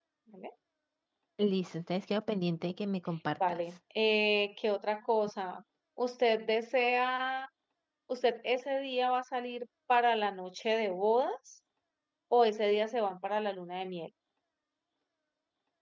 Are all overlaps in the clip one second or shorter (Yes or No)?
Yes